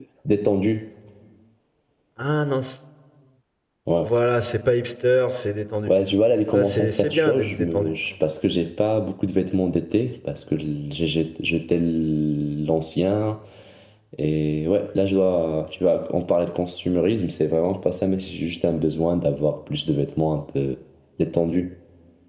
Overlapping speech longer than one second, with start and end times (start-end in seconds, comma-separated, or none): 6.5-7.9